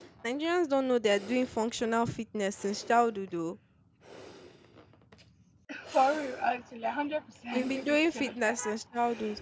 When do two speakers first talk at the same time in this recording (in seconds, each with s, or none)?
7.5 s